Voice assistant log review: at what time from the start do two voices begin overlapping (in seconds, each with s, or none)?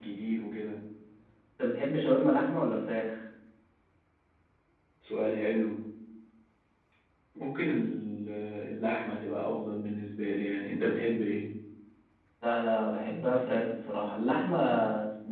none